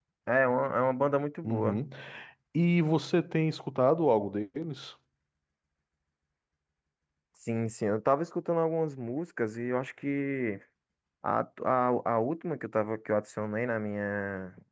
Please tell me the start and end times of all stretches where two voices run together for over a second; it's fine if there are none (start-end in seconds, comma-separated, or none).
none